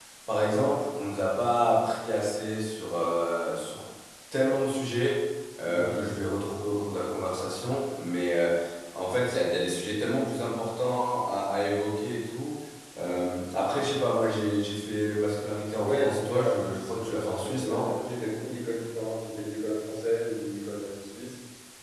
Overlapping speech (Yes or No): Yes